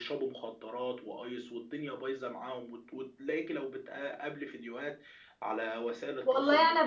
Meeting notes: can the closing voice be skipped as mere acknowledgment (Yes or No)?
No